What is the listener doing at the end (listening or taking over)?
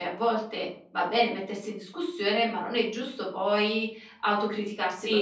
taking over